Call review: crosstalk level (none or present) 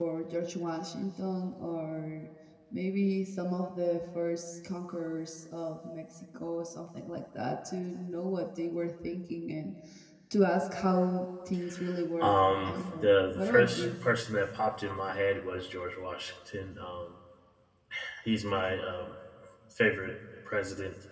present